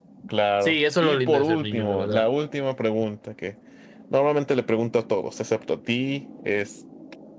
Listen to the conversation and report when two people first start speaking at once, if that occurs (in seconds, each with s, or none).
0.6 s